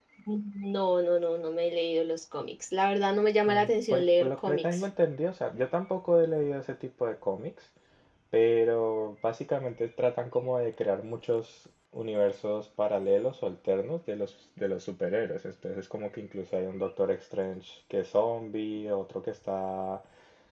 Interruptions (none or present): present